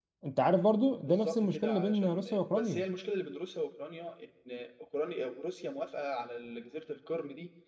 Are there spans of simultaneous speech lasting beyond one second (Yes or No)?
Yes